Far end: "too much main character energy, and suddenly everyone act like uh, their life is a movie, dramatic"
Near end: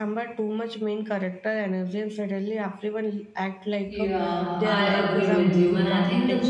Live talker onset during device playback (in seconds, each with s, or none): 3.8 s